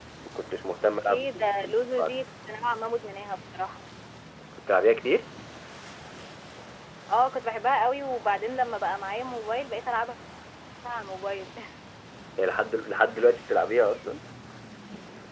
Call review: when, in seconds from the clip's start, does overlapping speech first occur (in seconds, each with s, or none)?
0.8 s